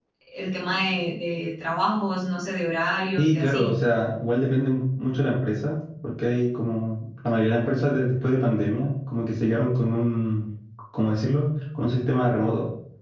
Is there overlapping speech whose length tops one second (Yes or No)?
No